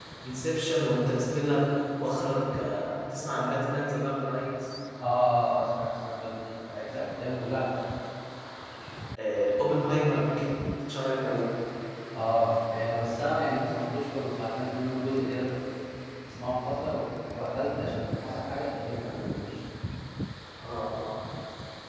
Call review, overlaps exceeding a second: none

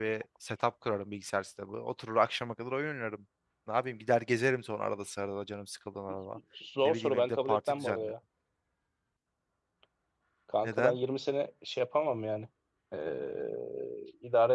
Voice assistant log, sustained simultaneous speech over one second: present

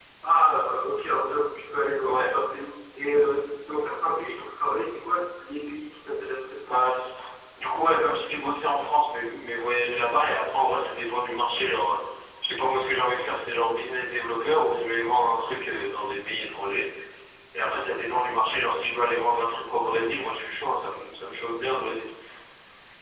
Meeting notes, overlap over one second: none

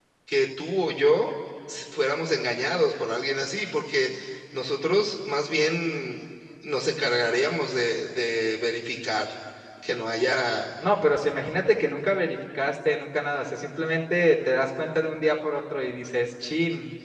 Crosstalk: none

